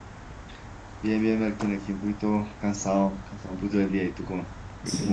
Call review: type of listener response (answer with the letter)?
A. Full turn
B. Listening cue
A